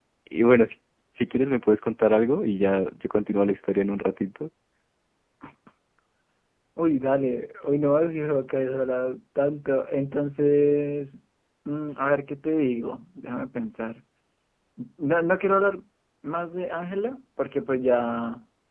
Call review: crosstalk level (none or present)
none